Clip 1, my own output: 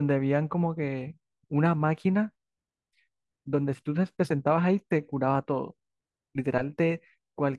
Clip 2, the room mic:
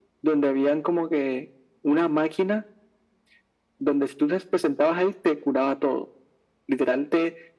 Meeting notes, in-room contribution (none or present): none